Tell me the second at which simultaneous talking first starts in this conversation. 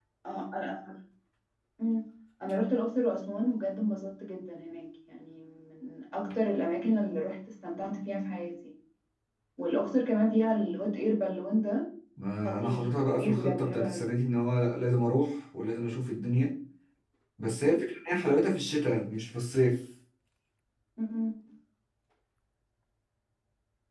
12.4 s

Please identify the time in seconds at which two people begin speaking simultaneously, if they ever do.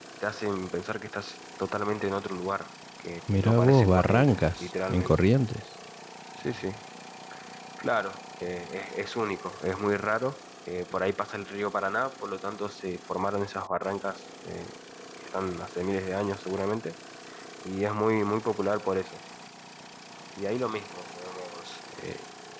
3.3 s

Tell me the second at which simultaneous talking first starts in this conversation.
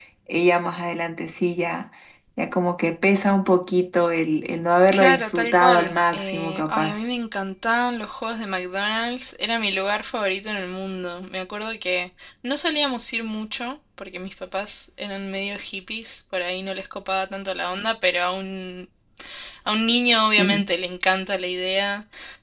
4.9 s

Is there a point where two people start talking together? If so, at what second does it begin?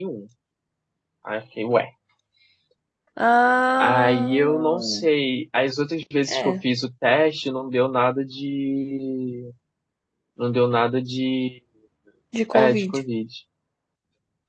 3.8 s

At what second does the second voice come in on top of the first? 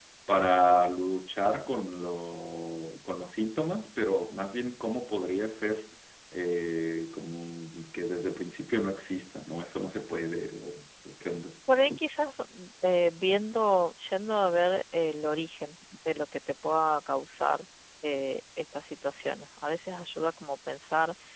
none

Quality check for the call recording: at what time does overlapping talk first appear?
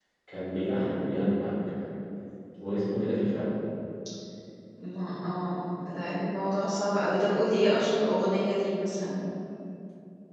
none

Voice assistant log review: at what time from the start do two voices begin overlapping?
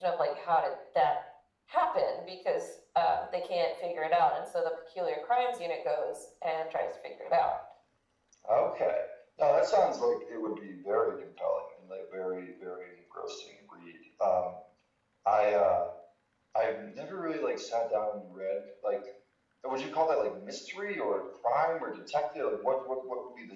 none

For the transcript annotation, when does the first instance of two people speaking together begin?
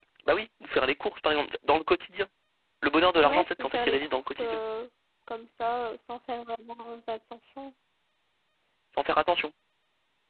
3.2 s

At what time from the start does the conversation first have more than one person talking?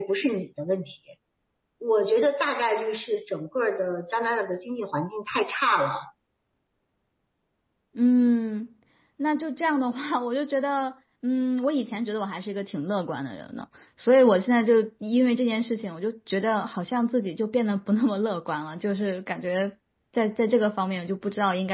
none

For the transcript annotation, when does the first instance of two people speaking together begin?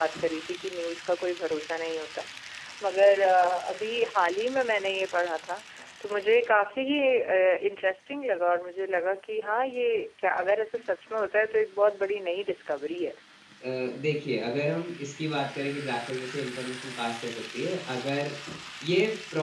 none

